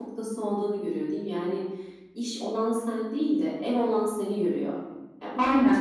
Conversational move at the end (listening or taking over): taking over